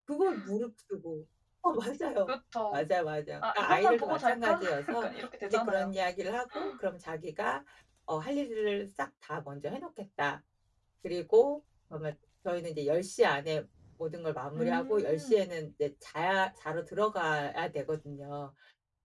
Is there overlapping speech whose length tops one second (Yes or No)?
Yes